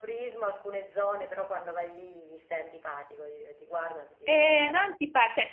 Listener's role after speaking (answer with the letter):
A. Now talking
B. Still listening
A